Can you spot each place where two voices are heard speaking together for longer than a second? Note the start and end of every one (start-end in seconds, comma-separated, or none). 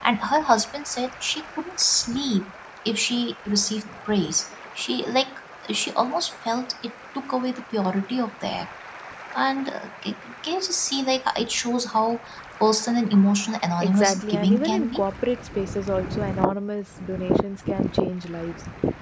13.8-15.0